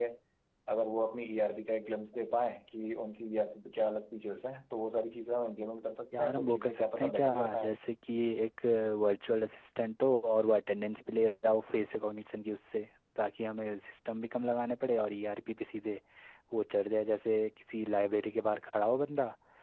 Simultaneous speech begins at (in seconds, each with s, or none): 6.1 s